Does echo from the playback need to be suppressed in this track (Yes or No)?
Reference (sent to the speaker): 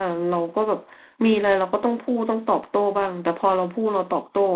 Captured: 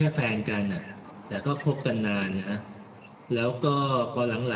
No